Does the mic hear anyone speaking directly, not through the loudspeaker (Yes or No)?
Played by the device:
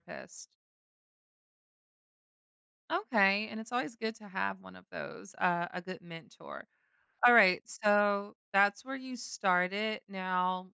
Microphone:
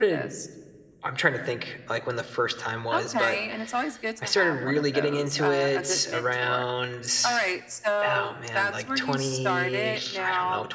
Yes